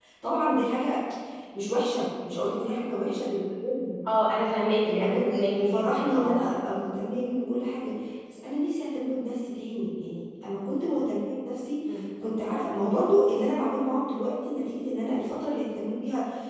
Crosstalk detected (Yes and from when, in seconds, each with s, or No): Yes, from 4.8 s